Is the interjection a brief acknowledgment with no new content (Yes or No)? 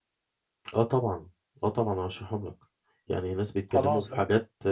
Yes